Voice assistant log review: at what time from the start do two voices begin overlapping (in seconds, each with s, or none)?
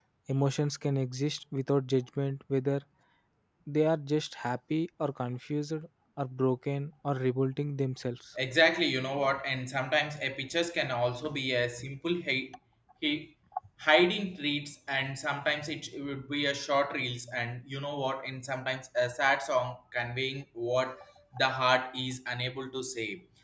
none